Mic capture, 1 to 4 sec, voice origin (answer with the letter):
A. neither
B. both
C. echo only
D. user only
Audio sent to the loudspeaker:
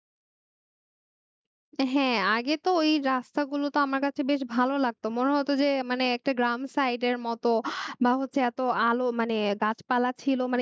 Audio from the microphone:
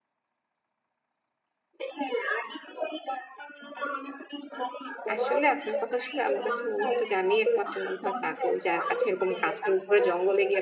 C